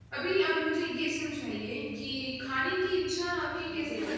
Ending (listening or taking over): listening